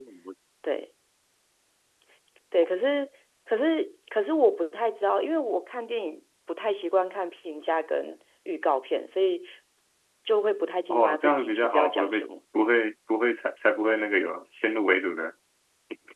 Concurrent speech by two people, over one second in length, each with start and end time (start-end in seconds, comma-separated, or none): 10.9-12.2